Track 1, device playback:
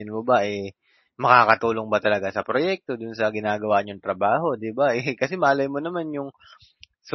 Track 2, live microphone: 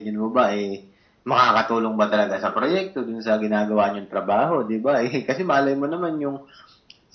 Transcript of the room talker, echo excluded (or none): none